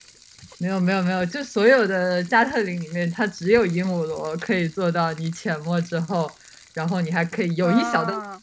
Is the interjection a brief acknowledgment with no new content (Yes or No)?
Yes